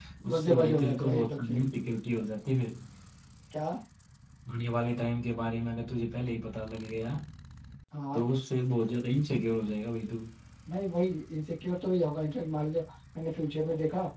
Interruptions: present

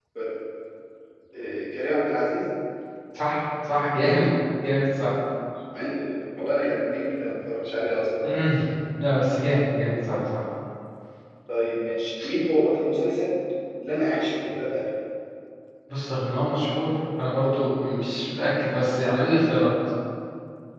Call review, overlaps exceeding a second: none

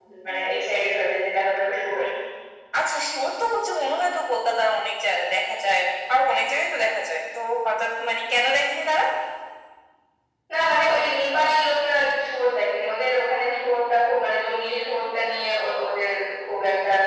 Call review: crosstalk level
none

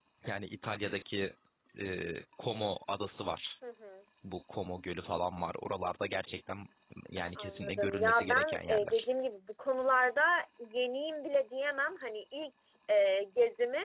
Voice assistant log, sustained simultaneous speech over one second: present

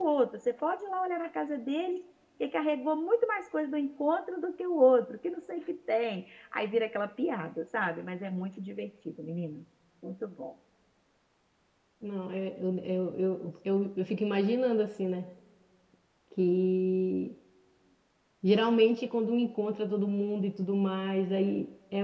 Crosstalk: none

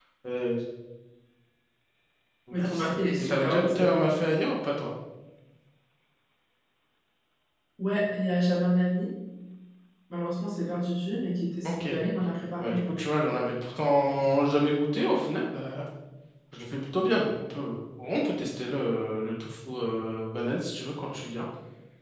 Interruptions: present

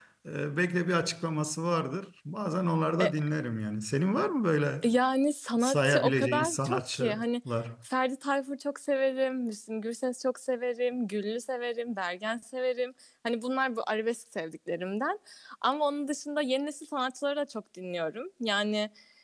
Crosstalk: present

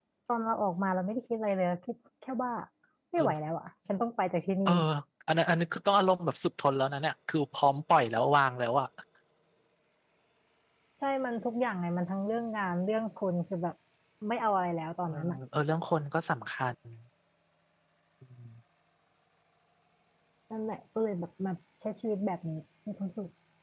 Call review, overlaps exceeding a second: none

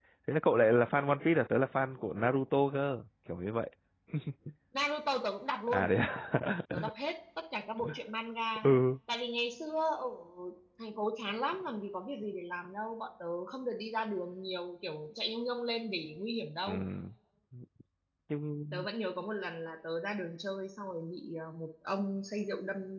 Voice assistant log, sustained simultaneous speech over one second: none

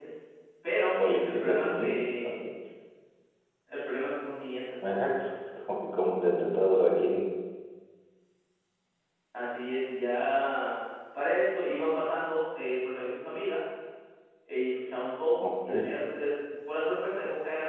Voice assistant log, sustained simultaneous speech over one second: present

